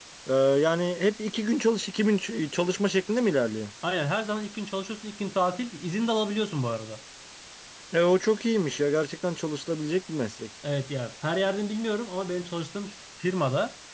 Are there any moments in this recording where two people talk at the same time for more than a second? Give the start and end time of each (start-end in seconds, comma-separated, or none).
none